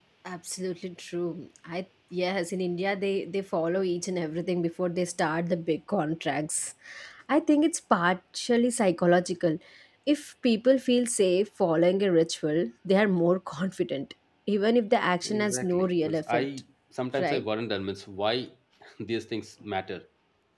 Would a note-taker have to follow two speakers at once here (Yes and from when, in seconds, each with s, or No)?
Yes, from 15.2 s